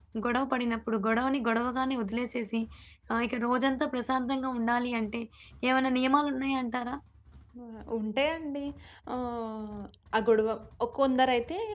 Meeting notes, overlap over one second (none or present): none